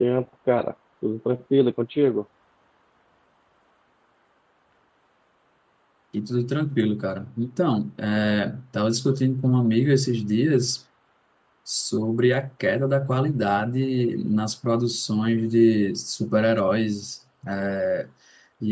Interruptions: none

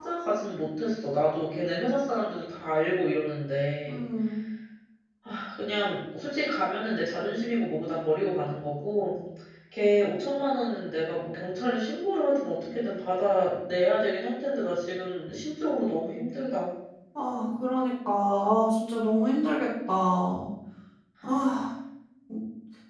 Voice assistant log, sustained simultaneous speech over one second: none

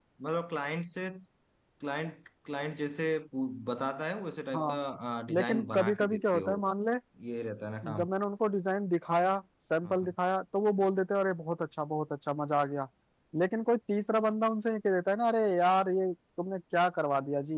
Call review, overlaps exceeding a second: present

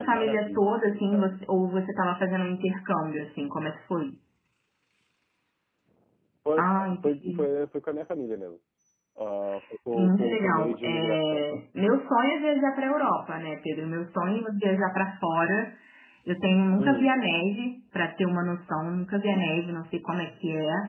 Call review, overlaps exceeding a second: present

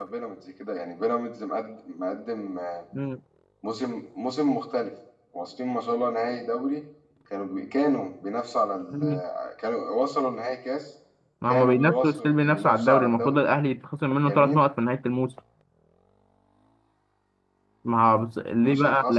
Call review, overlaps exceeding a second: present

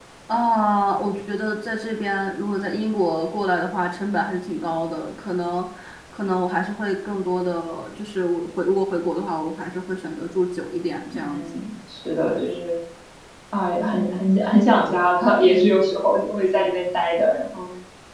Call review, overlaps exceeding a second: none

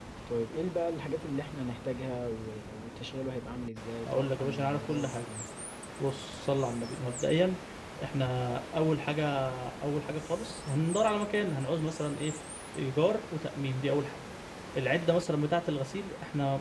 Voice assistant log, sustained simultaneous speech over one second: present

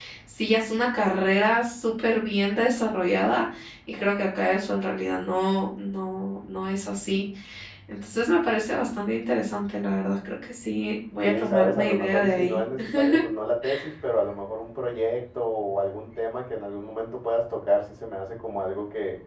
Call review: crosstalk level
present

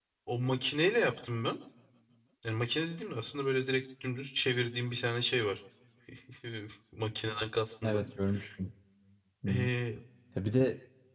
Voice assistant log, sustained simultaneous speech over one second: none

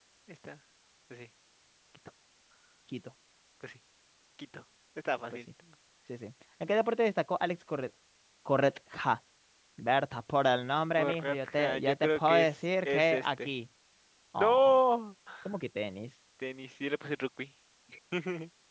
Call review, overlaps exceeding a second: present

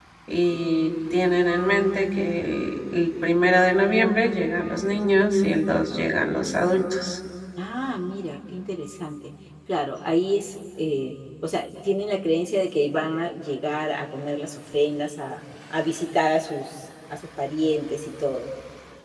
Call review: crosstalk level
none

